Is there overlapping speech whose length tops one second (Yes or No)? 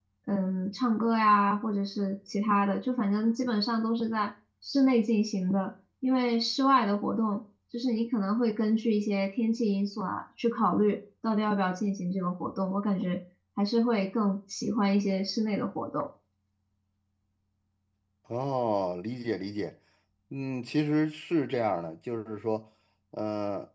No